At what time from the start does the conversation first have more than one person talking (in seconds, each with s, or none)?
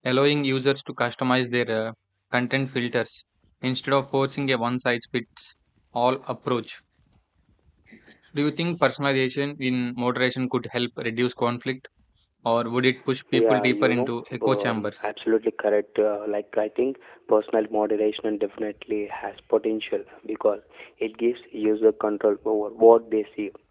13.3 s